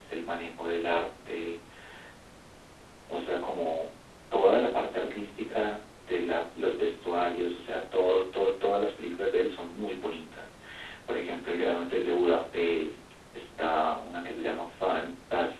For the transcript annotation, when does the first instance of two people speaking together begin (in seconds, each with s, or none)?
none